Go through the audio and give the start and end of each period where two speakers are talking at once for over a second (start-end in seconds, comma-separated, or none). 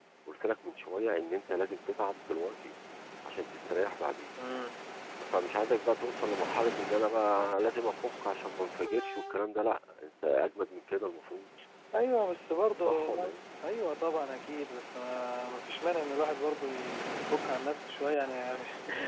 none